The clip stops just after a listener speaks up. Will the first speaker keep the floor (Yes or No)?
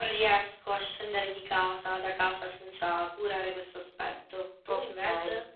No